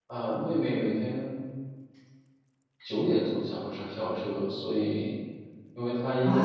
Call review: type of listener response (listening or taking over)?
taking over